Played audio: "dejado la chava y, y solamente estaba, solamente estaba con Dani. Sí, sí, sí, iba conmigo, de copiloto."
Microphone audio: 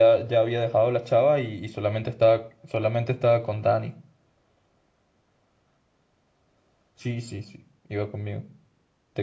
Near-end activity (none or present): none